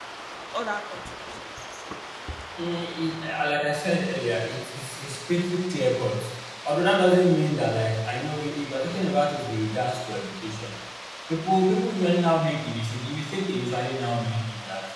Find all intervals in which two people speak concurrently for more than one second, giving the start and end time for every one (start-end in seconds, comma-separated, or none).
none